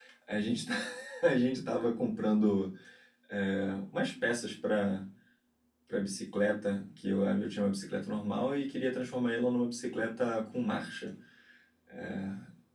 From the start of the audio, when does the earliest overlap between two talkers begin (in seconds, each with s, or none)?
none